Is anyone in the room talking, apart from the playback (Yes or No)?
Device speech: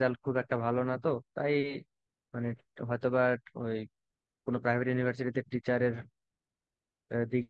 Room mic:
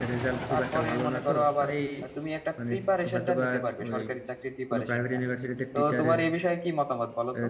Yes